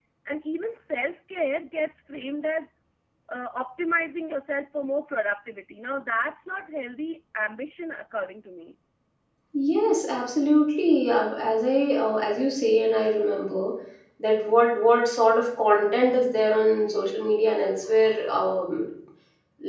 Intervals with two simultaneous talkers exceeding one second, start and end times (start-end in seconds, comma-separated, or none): none